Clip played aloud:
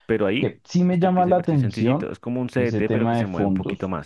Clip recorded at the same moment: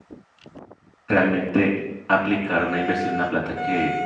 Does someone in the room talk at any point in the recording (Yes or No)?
Yes